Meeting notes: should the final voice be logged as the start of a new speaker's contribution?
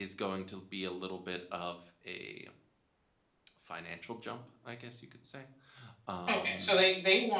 Yes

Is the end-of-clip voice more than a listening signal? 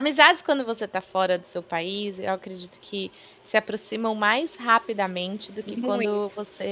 No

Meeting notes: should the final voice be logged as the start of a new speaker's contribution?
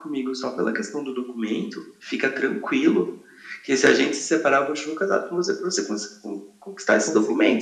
No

